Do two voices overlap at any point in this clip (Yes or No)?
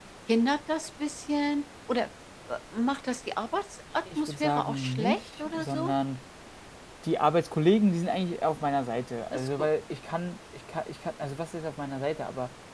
Yes